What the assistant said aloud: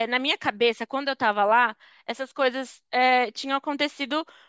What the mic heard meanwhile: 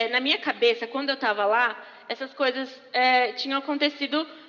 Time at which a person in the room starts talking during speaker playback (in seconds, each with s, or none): none